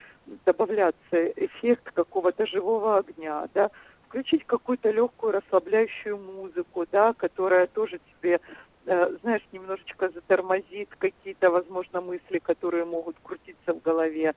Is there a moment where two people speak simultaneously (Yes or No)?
No